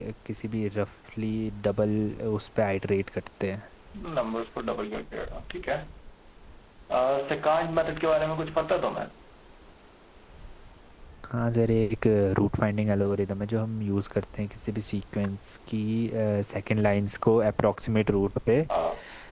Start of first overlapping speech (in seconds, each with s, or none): none